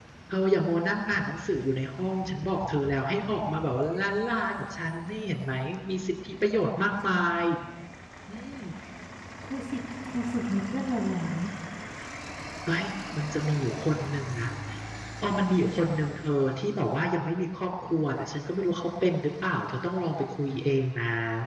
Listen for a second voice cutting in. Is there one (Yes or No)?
No